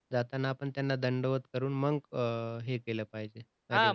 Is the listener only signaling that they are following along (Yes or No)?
No